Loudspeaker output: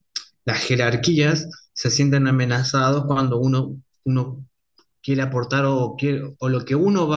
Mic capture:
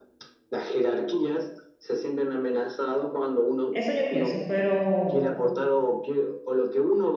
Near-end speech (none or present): present